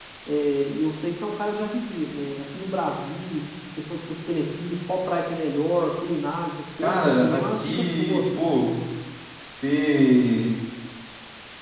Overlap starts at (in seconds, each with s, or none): 6.8 s